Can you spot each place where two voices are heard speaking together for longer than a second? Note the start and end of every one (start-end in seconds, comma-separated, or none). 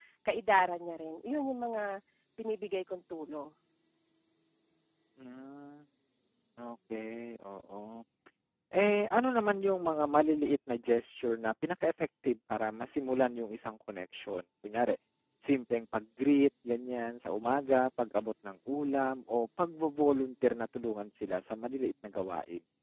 none